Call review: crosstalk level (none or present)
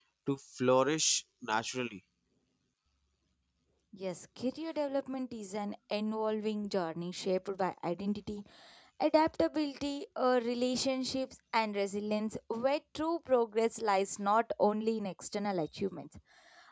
none